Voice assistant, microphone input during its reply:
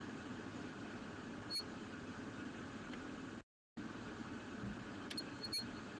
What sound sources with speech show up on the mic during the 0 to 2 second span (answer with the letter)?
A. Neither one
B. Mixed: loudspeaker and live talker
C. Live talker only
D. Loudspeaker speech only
A